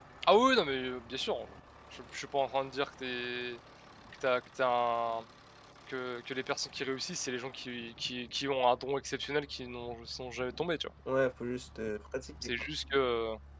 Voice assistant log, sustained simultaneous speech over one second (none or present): none